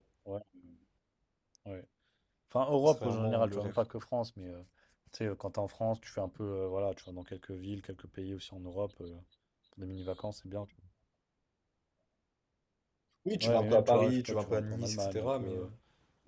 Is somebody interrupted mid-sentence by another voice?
Yes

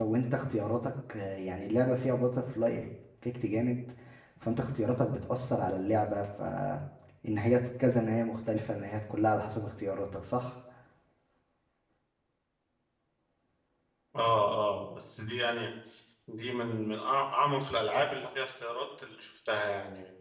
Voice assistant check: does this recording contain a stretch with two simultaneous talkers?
No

